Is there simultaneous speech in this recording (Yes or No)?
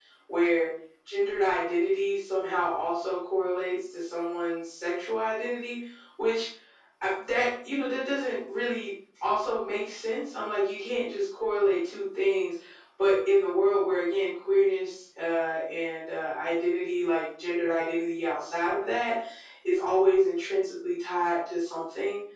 No